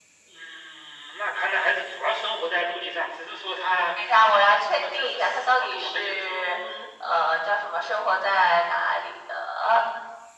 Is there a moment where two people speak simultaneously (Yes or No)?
Yes